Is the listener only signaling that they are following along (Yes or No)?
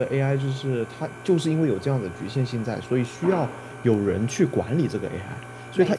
Yes